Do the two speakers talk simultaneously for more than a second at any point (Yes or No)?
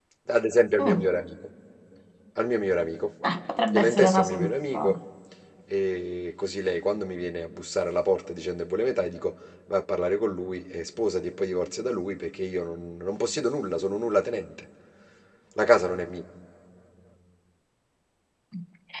Yes